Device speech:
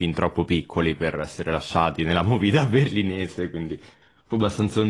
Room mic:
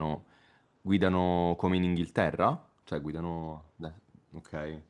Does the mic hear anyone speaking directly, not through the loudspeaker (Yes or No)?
Yes